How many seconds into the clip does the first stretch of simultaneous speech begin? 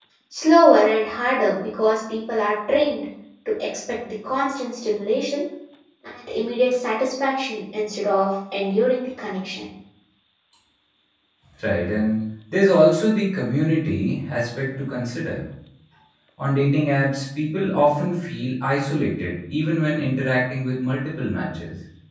none

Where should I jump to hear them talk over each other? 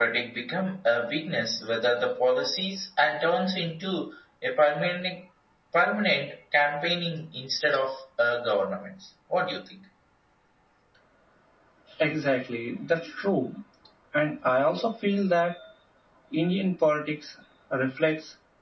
none

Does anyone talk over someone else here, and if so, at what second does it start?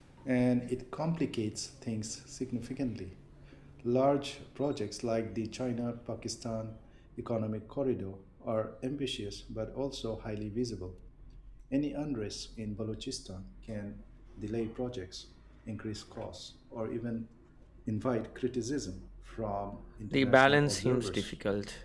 20.1 s

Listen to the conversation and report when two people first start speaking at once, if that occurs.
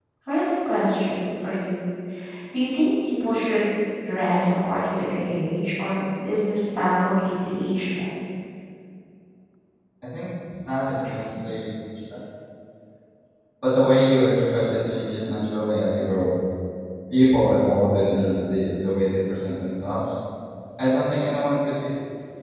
none

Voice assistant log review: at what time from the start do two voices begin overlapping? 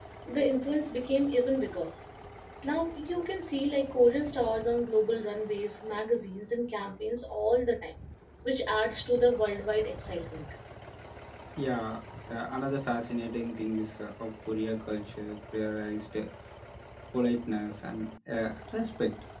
none

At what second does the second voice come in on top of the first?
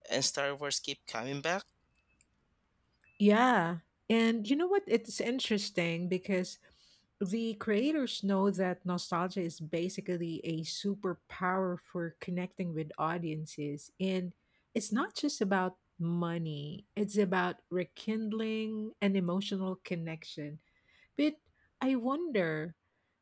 none

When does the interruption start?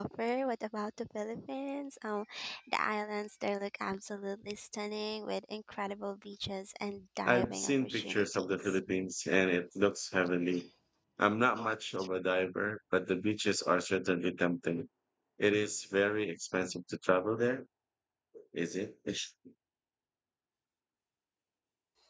7.3 s

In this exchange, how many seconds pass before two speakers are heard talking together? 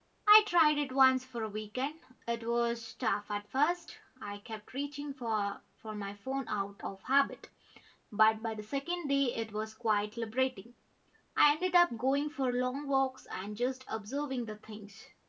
none

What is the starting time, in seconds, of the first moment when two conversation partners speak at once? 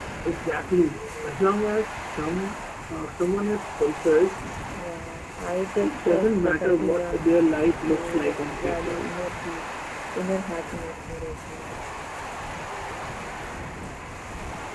5.8 s

